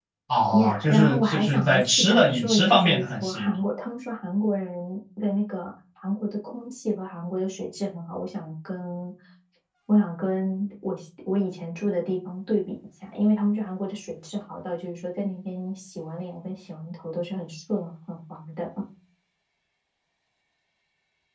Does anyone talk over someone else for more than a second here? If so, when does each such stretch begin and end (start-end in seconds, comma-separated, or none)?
0.5-3.6